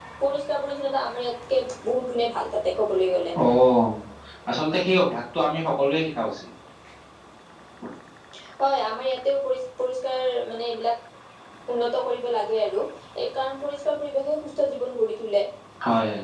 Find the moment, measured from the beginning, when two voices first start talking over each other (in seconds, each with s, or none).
none